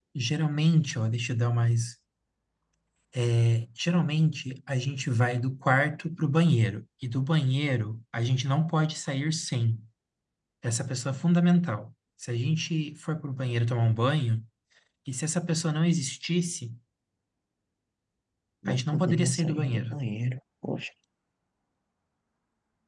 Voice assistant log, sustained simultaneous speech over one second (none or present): present